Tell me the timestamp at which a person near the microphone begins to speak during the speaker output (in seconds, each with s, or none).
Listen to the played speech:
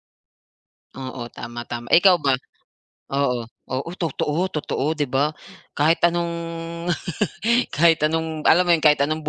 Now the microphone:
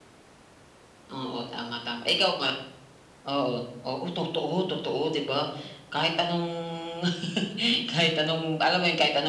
none